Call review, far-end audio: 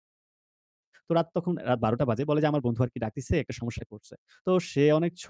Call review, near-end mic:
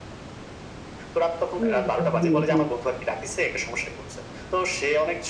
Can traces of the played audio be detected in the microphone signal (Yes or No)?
Yes